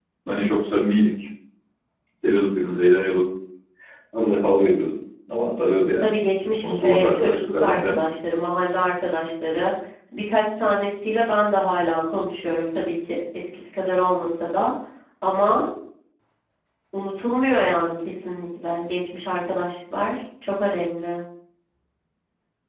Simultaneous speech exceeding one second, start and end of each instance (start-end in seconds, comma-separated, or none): 6.6-8.0